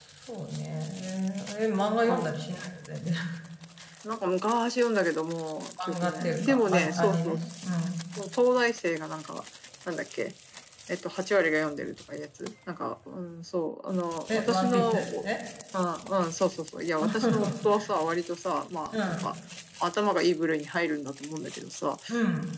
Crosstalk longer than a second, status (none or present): present